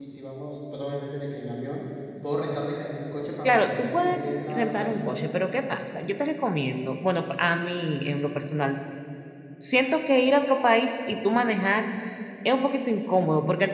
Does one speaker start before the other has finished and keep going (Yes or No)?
Yes